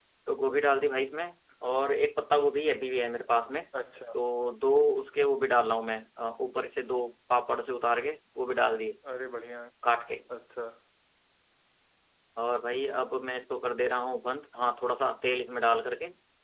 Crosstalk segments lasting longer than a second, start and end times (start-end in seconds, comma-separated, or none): none